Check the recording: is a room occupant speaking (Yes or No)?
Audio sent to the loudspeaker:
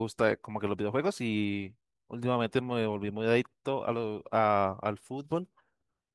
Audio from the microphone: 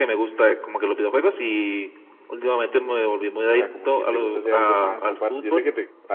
Yes